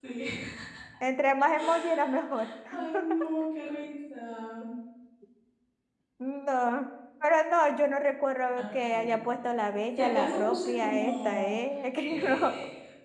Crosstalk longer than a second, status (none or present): present